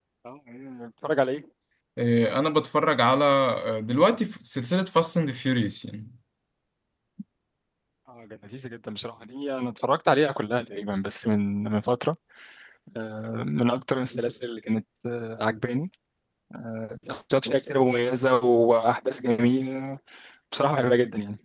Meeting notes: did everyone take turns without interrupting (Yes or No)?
Yes